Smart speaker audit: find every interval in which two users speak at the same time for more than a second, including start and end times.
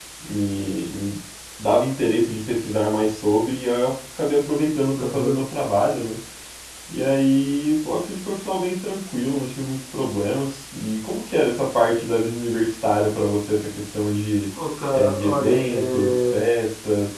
14.9-16.2

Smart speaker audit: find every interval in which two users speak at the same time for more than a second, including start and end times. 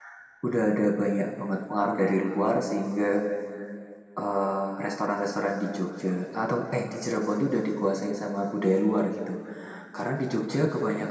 none

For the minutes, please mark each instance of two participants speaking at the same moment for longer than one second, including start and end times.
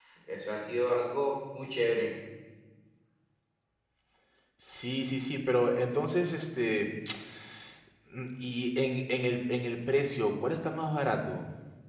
none

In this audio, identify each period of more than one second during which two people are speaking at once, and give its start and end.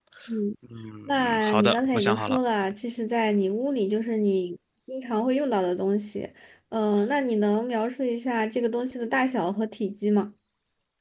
1.1-2.4

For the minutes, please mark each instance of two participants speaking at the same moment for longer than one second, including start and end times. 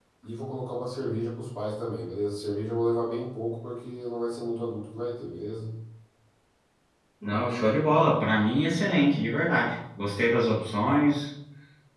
none

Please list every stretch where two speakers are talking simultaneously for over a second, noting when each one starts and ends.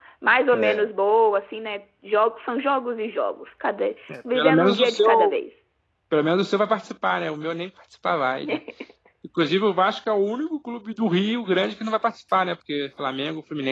4.1-5.4

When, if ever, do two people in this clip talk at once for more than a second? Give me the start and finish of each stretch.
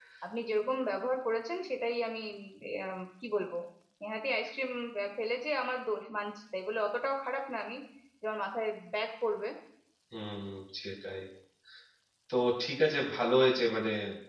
none

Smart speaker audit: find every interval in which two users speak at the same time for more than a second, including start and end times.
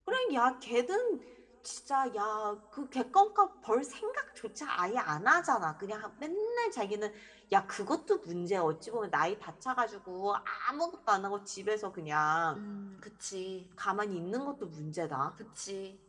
none

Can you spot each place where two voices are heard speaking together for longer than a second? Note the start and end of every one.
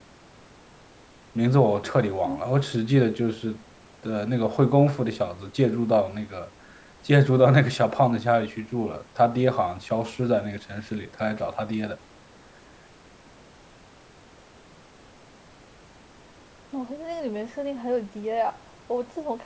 none

